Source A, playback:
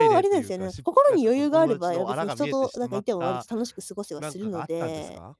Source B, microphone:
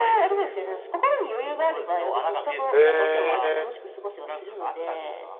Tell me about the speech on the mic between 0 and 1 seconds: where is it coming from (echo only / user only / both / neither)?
echo only